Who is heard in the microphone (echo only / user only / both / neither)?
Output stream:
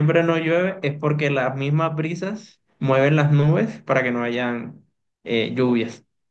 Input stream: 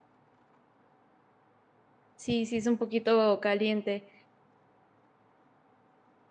user only